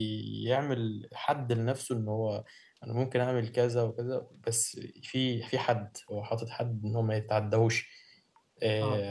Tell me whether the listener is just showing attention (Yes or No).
Yes